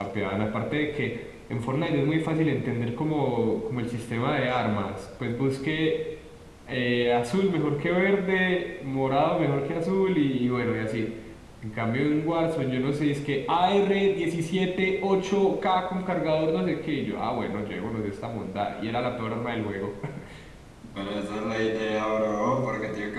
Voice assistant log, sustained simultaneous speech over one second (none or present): none